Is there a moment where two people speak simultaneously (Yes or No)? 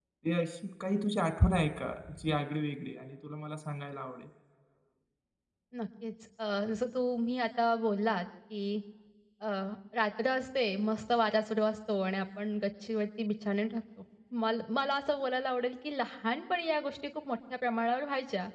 No